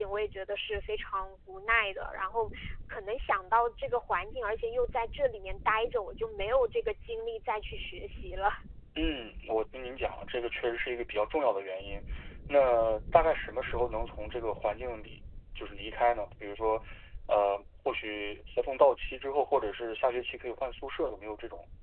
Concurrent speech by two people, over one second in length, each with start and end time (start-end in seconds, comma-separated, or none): none